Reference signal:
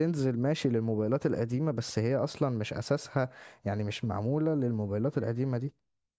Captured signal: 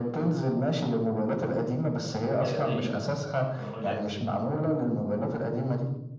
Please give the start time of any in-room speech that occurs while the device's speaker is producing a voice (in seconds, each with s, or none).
2.4 s